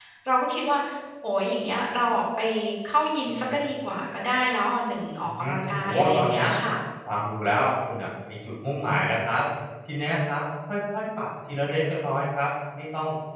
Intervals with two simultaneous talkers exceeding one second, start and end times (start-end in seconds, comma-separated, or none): 5.2-6.5